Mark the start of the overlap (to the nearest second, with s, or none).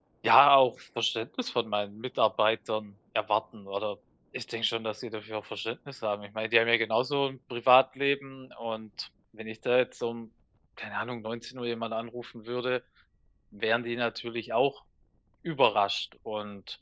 none